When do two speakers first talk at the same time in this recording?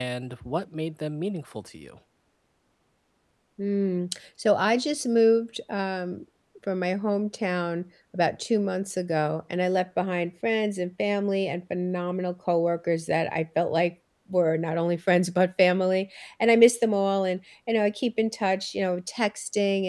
none

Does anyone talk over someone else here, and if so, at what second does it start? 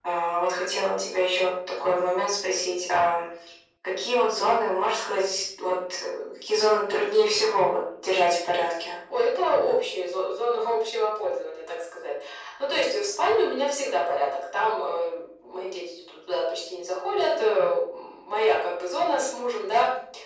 none

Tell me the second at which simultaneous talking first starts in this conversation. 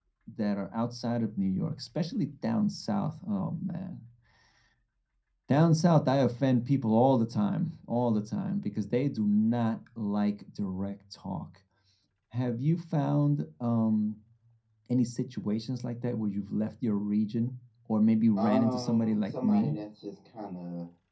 18.4 s

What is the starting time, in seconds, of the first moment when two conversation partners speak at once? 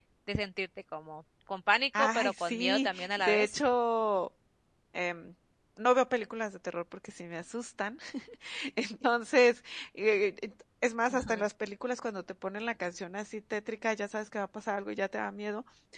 2.0 s

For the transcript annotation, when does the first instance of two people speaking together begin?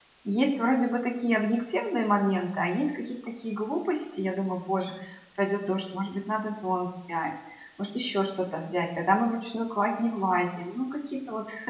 none

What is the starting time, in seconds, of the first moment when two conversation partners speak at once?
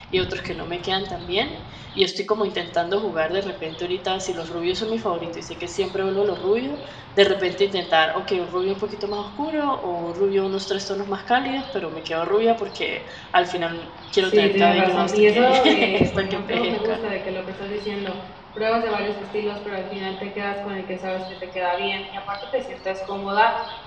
14.2 s

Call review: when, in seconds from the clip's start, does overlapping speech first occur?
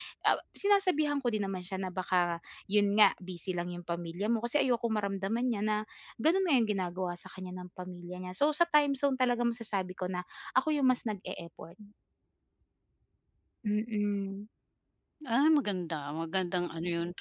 none

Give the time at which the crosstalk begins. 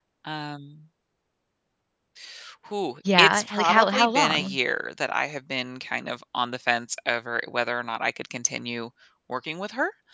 3.2 s

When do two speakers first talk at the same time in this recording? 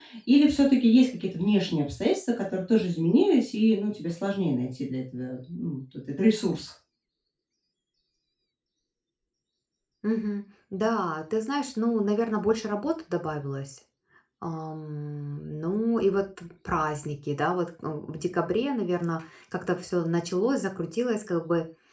none

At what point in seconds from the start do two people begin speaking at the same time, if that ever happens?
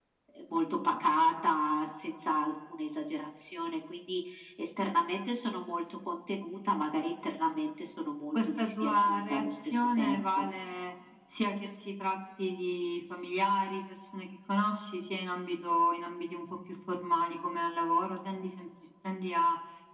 8.3 s

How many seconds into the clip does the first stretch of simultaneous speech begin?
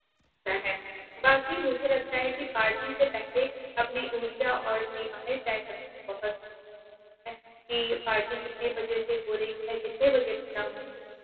none

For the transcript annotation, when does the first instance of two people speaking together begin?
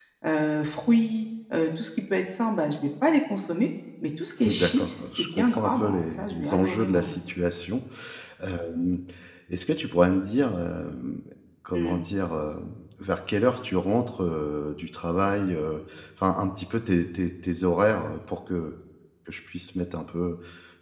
4.5 s

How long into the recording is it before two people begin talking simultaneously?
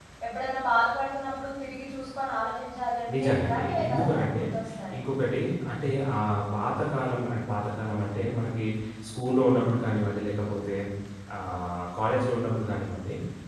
3.1 s

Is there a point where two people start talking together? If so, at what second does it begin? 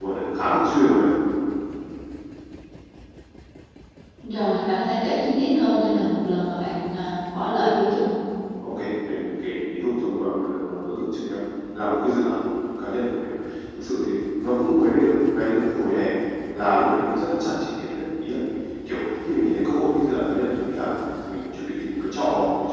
none

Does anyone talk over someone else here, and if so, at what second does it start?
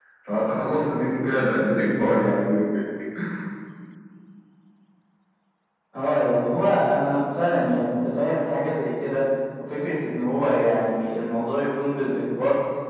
none

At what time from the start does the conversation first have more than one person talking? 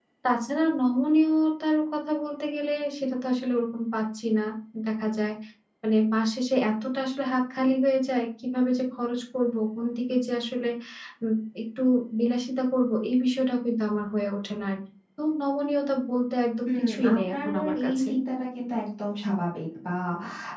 16.7 s

